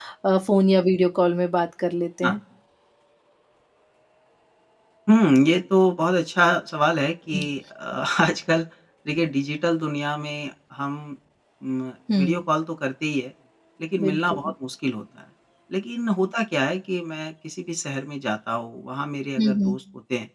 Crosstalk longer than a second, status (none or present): none